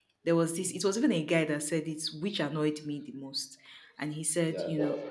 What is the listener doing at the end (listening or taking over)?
listening